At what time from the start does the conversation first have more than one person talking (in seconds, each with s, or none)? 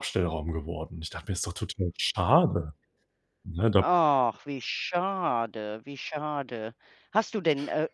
none